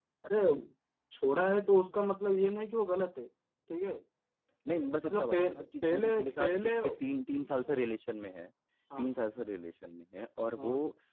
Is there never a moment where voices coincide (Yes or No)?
No